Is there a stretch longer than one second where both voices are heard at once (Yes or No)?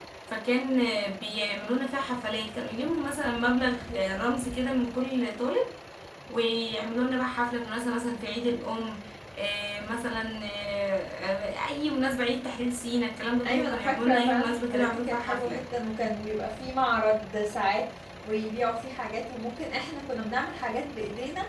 Yes